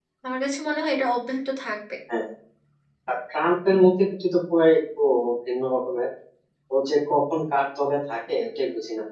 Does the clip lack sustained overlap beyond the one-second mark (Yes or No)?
Yes